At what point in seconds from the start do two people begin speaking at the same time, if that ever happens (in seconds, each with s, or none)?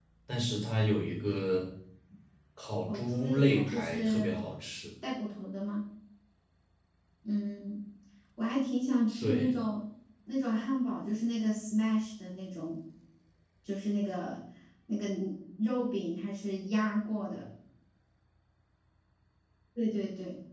2.9 s